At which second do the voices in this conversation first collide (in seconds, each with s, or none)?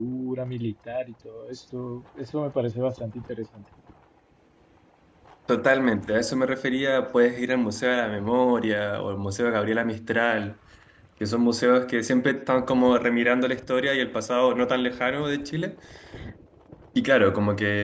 none